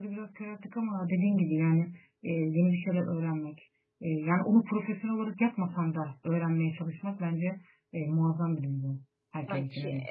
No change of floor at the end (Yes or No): No